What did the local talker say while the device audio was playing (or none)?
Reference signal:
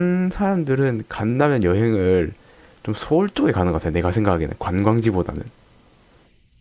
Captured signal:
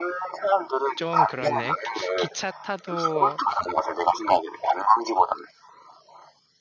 좀 그렇네. 기- 기차 타도